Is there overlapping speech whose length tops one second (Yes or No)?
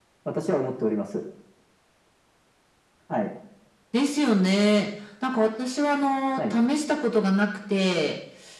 No